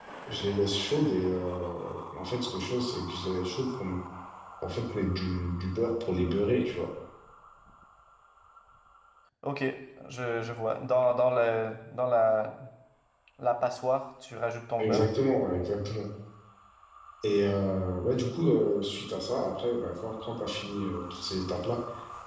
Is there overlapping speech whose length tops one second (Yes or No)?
No